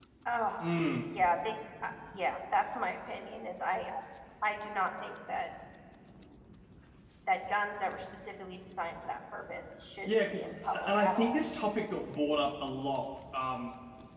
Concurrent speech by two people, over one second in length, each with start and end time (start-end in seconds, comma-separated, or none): 10.1-11.4